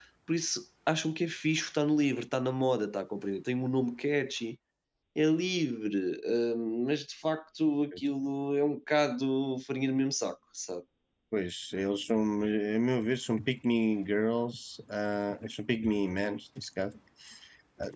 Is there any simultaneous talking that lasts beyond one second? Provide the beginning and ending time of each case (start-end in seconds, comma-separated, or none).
none